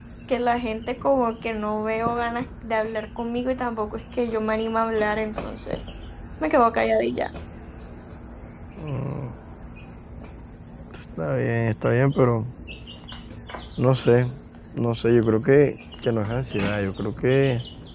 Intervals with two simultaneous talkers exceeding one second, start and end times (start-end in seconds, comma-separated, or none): none